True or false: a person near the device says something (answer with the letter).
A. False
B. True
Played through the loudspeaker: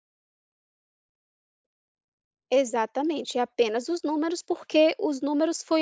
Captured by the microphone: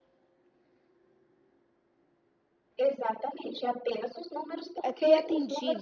B